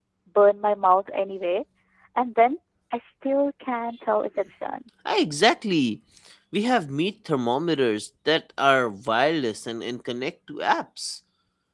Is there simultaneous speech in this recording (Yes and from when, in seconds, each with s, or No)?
No